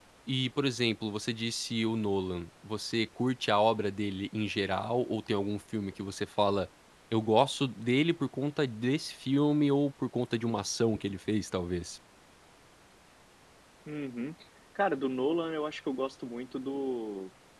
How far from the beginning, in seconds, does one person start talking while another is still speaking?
none

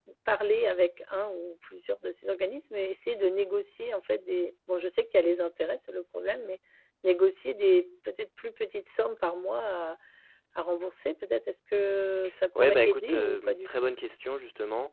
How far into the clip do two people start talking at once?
12.6 s

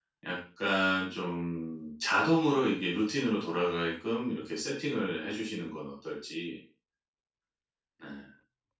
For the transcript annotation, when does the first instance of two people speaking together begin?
none

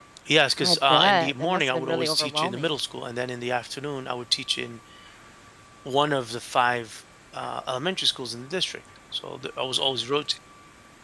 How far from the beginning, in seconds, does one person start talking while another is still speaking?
0.6 s

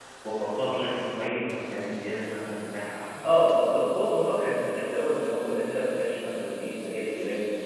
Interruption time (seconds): none

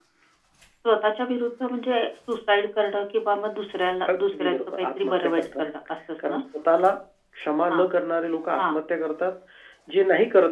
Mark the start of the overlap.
4.1 s

